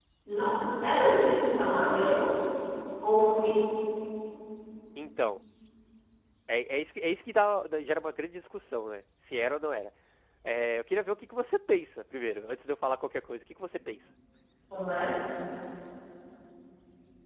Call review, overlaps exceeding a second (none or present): none